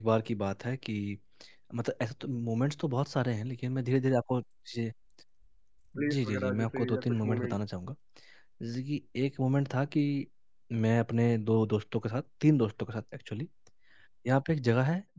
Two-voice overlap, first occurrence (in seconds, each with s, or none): 6.1 s